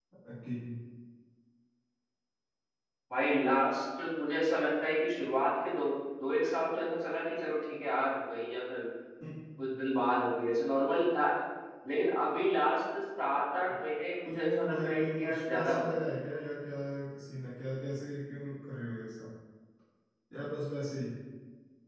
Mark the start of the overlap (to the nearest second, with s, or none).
14 s